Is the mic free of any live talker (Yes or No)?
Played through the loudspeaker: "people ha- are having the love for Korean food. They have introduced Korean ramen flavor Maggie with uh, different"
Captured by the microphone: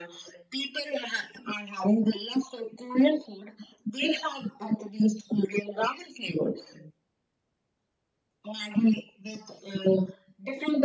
Yes